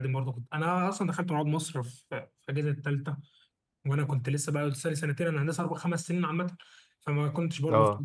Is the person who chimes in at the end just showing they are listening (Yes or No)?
Yes